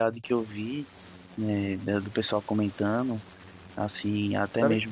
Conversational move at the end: listening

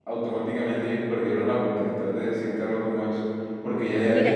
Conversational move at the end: listening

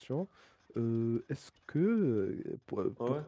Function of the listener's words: listening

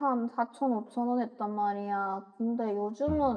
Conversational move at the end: listening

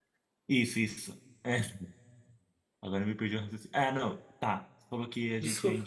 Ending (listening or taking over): listening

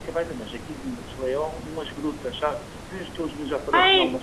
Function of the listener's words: taking over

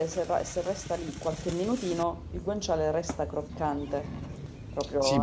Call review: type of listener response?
taking over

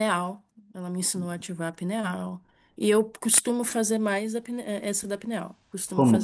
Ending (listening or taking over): taking over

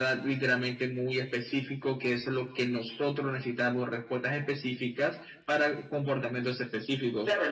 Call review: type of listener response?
taking over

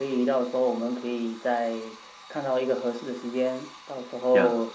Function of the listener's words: listening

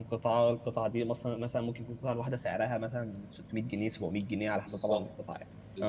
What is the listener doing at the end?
taking over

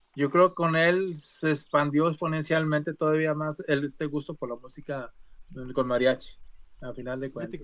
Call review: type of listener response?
taking over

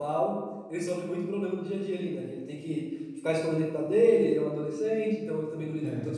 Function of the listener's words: listening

